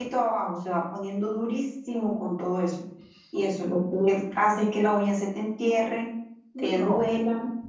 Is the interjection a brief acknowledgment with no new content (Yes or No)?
Yes